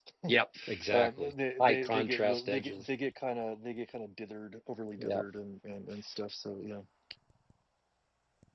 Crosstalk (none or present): present